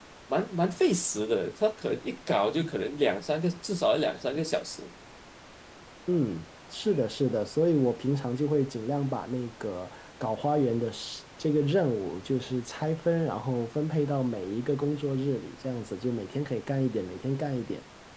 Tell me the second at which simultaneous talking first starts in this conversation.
none

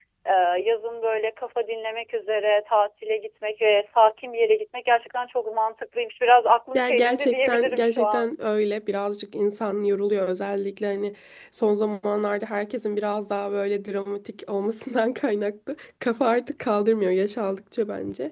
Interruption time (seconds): 6.7 s

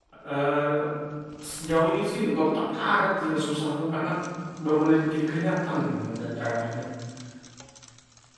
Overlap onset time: none

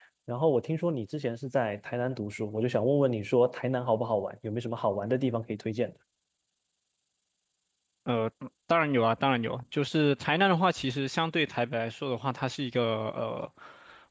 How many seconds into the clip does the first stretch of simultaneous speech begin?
none

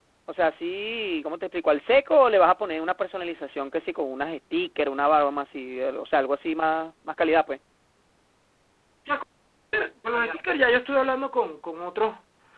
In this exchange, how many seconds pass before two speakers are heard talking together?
none

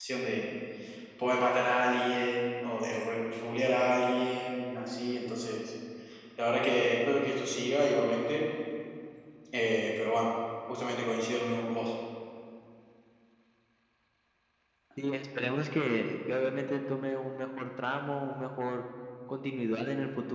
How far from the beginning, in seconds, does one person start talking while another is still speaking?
none

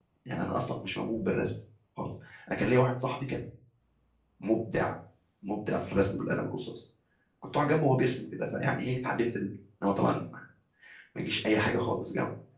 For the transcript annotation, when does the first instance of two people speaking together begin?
none

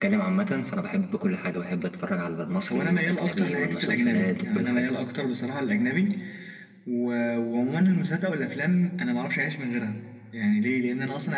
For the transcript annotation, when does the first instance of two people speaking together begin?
2.7 s

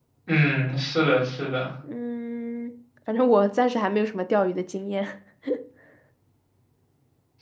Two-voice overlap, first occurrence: none

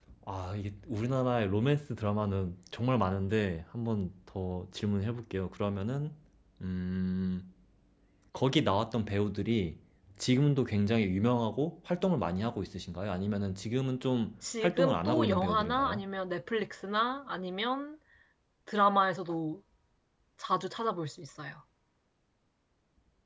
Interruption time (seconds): 14.4 s

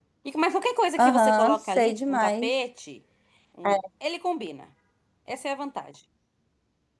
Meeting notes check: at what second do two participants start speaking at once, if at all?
1.0 s

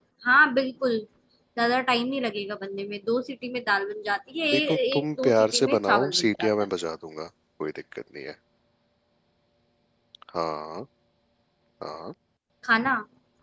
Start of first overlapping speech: 4.5 s

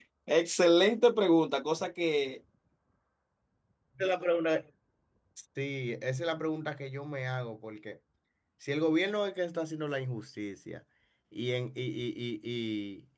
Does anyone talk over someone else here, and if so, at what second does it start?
none

